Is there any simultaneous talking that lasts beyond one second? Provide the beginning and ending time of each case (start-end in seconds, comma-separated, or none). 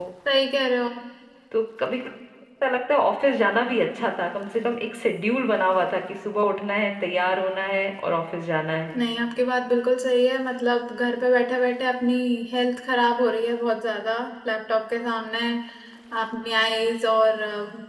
none